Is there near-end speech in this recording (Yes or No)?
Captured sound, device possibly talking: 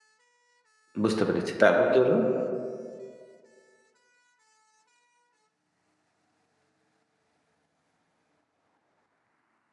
Yes